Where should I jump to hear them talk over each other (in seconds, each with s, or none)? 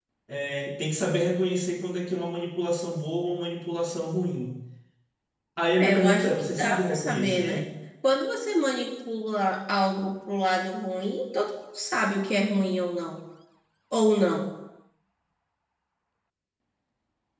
5.8 s